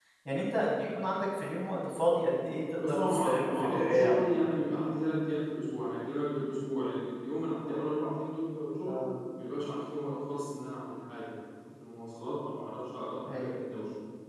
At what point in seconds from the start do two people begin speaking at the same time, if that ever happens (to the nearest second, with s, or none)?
3 s